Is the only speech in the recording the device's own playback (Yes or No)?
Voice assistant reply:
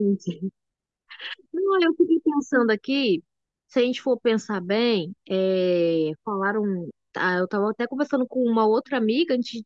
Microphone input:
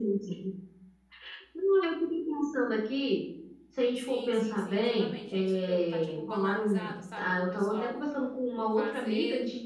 No